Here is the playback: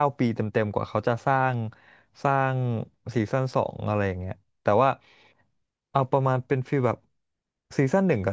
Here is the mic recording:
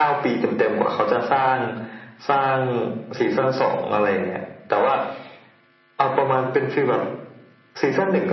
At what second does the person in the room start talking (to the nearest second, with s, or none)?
none